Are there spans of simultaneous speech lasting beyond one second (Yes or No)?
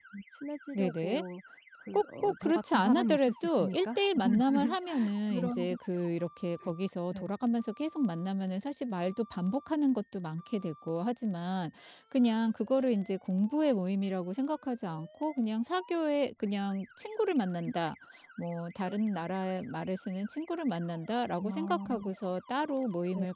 Yes